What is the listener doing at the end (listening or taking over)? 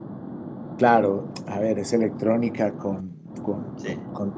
listening